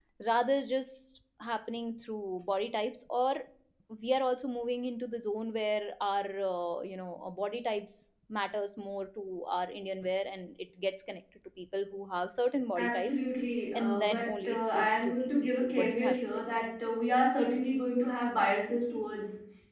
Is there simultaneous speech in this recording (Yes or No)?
Yes